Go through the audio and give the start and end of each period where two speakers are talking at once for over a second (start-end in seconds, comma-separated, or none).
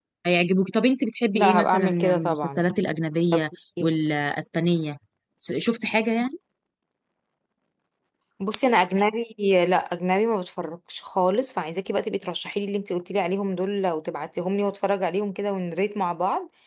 1.3-2.6